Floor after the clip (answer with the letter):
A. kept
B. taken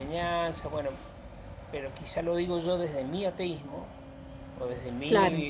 A